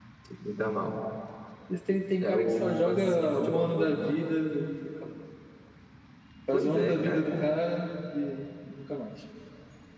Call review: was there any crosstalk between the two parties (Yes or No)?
Yes